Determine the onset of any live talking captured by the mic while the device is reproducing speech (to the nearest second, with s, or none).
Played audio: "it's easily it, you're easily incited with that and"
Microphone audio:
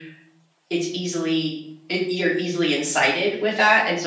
none